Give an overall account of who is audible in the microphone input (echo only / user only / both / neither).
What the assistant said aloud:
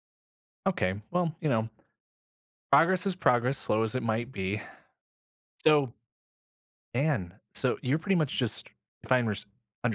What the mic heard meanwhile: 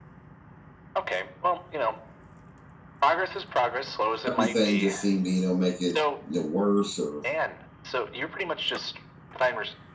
both